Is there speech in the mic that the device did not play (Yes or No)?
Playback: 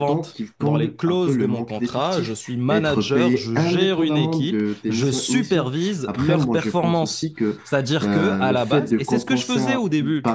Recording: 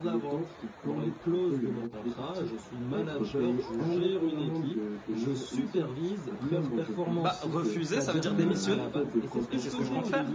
Yes